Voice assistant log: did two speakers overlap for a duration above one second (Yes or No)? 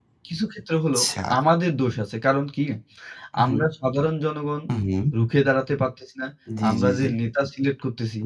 No